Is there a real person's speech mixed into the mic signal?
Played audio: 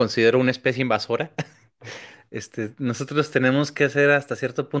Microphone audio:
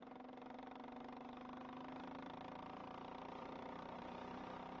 No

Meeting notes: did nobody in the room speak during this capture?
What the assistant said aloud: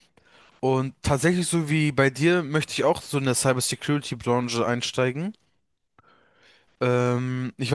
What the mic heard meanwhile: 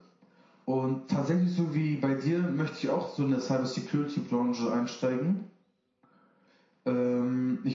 Yes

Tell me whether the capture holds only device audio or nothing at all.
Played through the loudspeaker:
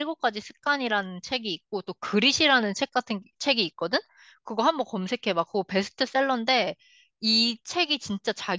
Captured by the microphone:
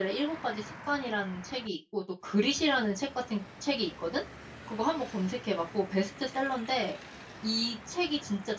Yes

